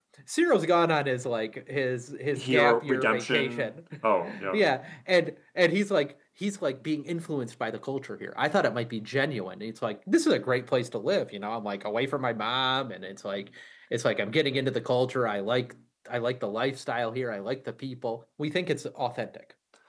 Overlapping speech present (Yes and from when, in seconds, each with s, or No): Yes, from 2.4 s